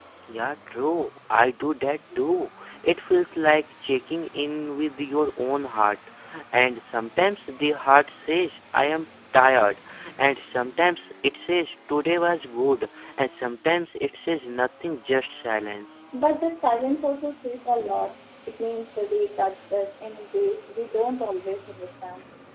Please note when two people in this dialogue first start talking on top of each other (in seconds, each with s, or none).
none